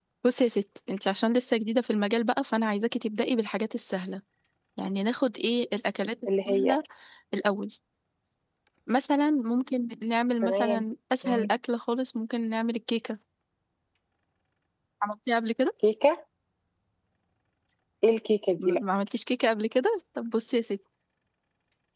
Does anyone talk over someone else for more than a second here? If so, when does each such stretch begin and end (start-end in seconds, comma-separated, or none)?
none